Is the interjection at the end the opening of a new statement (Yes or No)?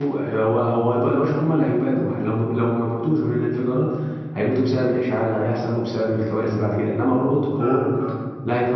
No